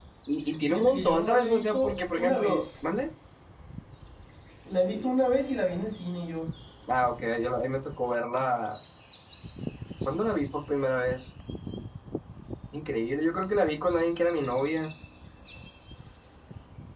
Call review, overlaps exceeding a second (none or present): present